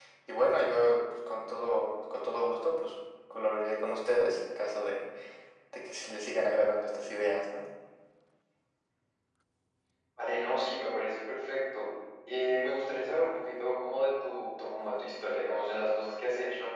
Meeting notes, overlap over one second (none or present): none